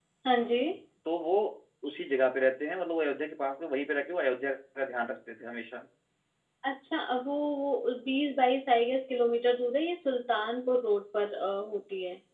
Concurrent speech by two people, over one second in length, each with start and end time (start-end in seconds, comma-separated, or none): none